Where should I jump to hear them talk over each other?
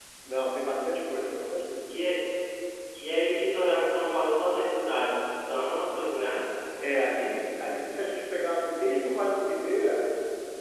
none

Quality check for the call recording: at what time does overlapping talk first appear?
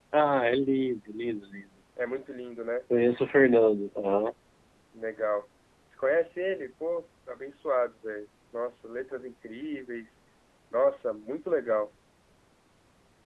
none

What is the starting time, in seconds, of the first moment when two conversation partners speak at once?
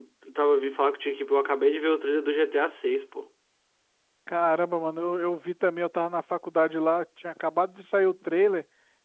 none

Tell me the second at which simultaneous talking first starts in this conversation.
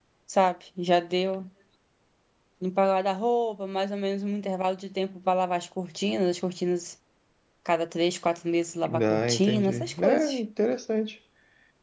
9.1 s

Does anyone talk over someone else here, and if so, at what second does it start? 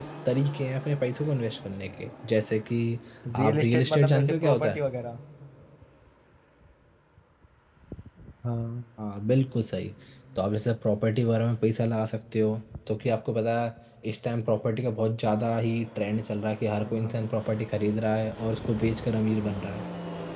3.4 s

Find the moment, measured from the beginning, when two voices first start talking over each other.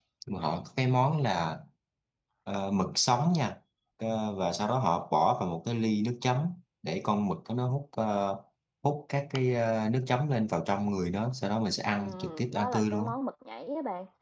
11.9 s

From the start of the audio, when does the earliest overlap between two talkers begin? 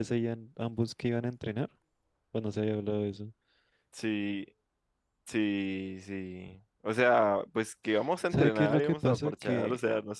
8.3 s

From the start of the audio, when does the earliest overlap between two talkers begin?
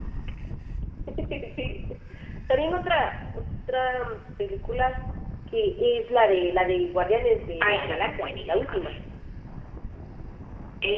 7.6 s

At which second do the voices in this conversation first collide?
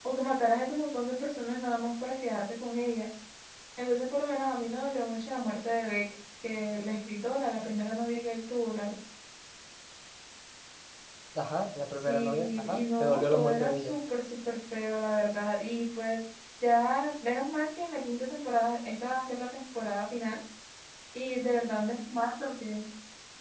12.1 s

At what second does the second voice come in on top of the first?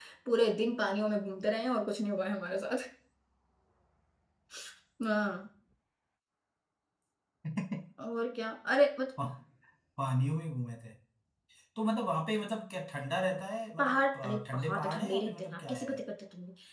13.8 s

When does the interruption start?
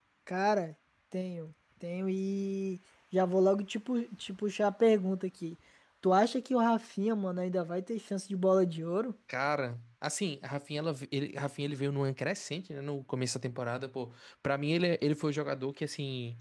none

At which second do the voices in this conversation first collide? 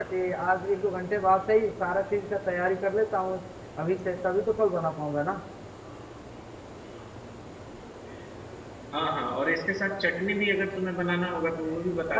none

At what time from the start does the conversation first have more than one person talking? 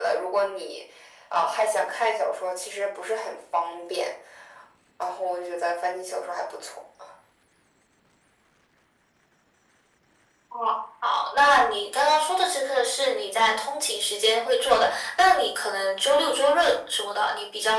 none

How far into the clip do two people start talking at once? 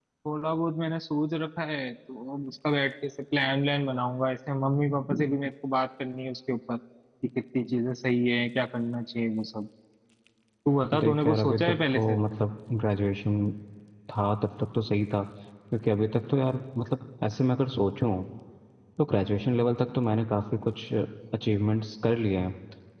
11.0 s

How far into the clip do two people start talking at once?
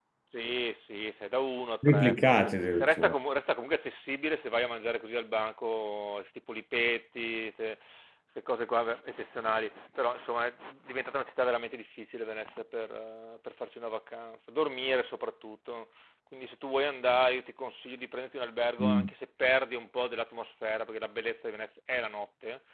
1.8 s

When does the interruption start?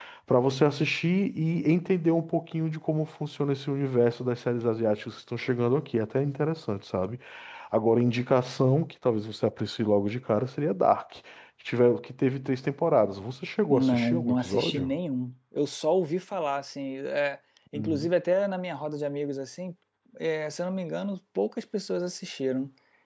13.7 s

